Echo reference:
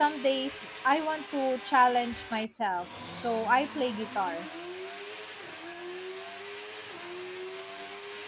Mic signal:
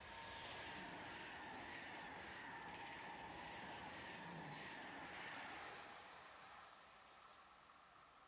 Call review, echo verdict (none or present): none